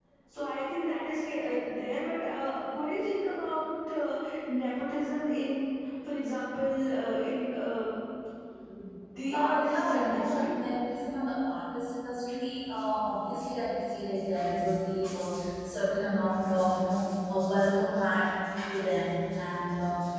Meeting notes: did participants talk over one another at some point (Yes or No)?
Yes